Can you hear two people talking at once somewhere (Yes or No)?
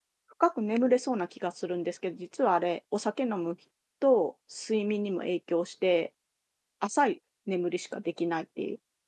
No